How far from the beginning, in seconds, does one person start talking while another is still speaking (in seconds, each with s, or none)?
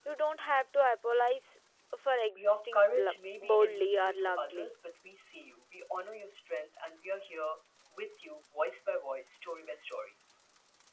2.4 s